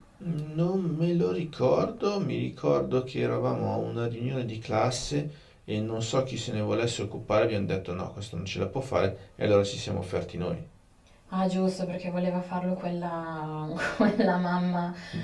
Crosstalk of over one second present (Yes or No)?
No